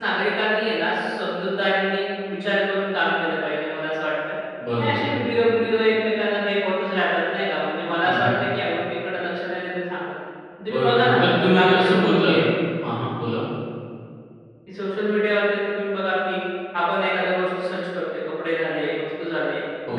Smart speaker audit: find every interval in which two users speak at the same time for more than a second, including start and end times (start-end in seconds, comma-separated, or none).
10.7-12.3